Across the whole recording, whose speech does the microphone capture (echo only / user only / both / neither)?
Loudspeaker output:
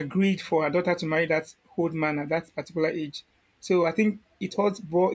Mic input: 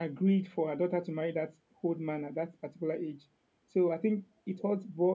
echo only